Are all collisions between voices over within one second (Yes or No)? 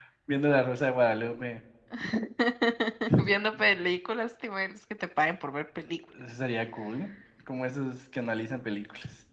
Yes